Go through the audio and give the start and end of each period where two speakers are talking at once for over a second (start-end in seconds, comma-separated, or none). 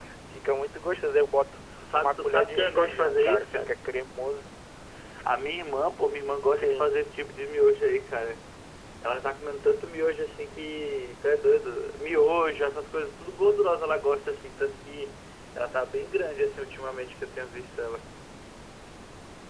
1.9-3.7